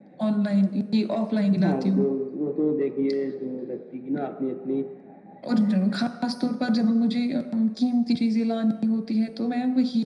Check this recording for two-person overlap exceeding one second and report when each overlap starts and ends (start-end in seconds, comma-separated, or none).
none